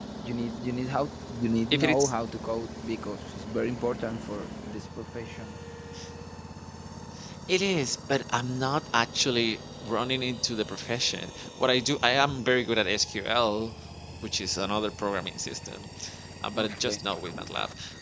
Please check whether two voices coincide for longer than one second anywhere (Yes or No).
No